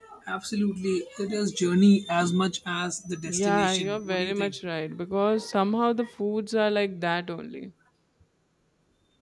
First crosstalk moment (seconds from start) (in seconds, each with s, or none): 3.2 s